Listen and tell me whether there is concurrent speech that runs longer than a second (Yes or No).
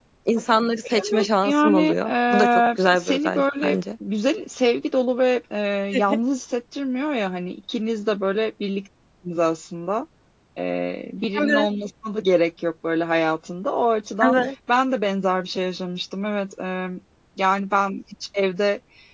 Yes